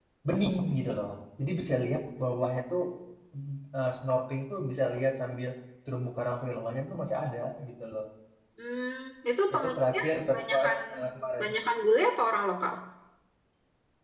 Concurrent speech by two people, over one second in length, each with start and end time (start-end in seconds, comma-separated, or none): 9.5-10.8